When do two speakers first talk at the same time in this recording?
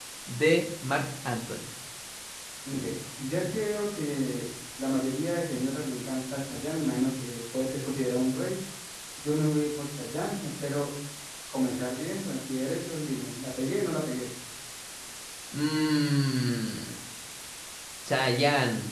none

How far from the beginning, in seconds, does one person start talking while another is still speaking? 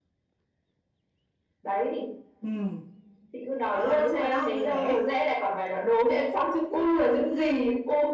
4 s

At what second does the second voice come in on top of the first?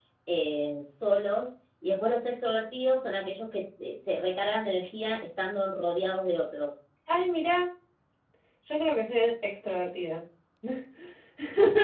none

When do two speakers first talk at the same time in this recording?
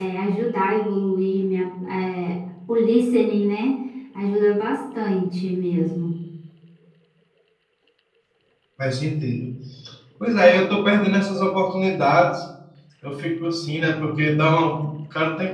none

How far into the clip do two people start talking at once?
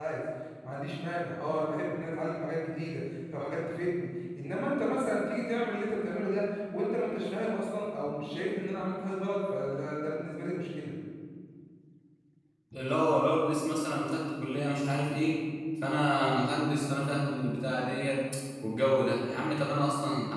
none

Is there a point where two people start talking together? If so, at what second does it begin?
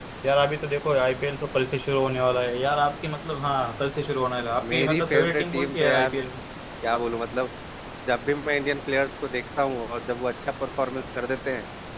5 s

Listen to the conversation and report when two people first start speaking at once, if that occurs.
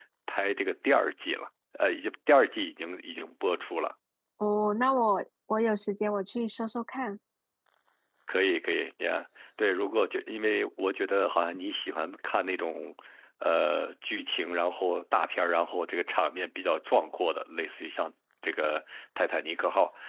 none

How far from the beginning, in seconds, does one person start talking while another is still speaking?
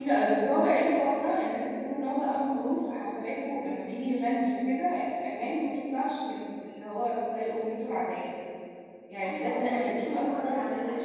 9 s

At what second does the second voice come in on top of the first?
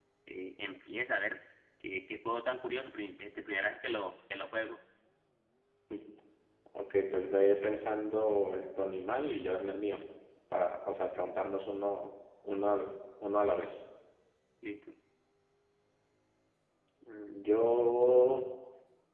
none

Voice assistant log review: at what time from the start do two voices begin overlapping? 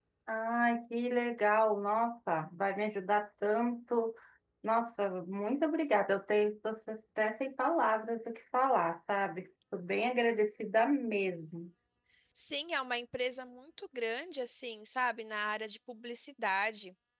none

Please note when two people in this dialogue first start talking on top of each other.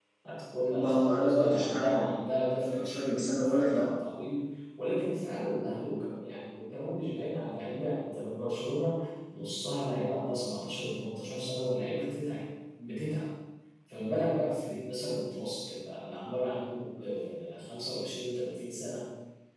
1 s

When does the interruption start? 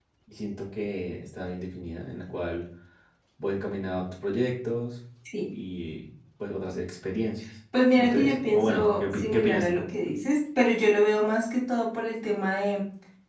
8 s

